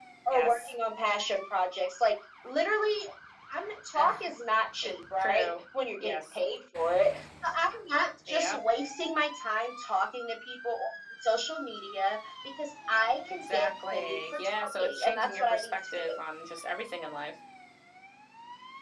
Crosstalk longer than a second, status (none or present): present